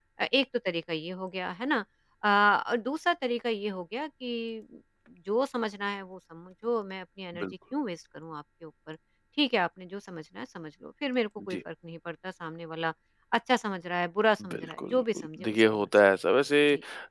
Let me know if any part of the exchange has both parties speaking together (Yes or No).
Yes